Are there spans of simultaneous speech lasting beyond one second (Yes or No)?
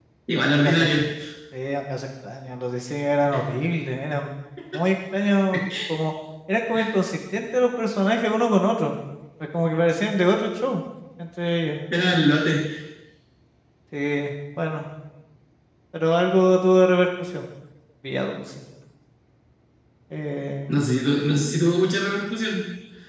No